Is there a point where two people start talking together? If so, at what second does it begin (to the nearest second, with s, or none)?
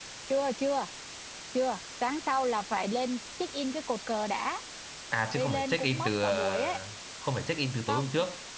5 s